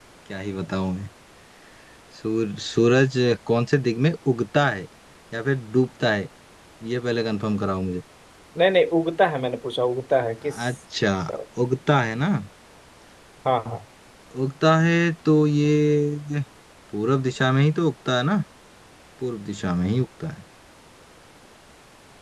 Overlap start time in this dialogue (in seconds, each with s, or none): none